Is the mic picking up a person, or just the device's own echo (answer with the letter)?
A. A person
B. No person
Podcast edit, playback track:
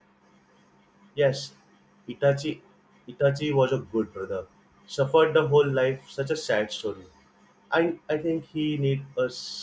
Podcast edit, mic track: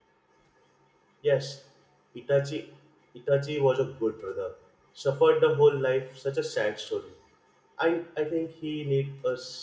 B